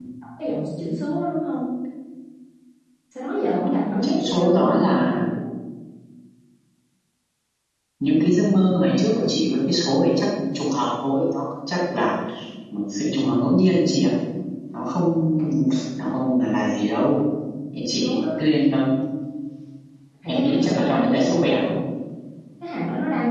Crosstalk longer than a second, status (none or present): present